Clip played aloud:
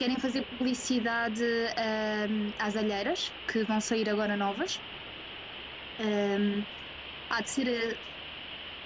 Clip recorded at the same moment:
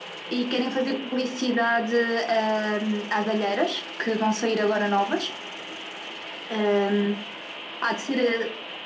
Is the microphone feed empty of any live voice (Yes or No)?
Yes